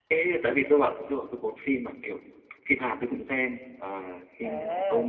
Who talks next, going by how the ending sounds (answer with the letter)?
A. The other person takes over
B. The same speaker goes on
A